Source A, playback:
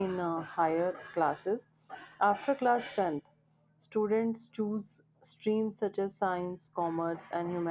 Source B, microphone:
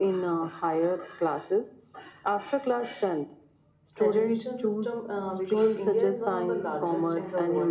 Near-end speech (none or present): present